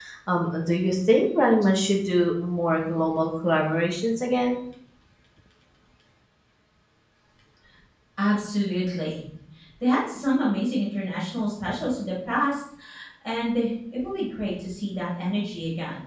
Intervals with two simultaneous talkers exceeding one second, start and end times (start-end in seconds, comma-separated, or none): none